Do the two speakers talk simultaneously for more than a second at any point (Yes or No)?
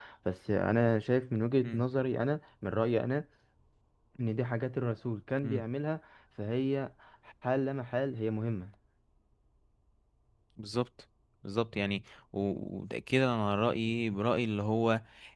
No